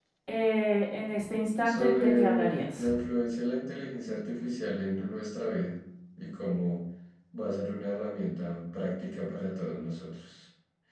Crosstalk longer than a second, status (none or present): present